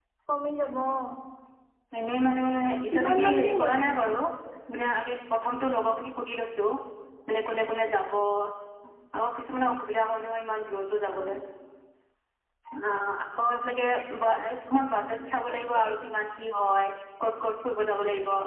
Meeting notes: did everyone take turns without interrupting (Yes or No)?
No